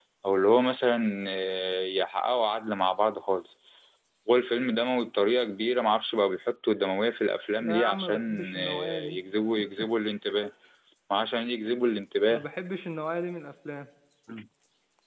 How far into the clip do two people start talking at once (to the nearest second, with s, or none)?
8 s